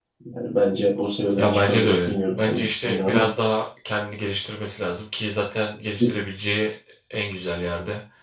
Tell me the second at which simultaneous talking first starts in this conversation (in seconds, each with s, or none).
1.4 s